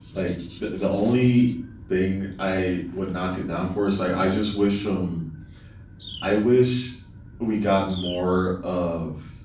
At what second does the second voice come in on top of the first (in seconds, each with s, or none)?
none